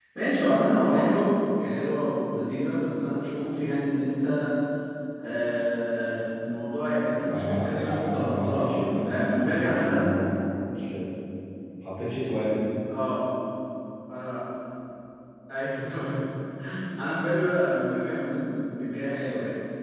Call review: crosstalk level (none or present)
present